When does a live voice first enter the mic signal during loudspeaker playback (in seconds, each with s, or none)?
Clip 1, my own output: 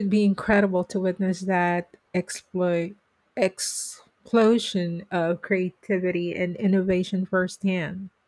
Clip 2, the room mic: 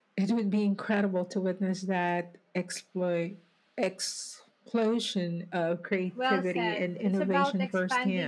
6.1 s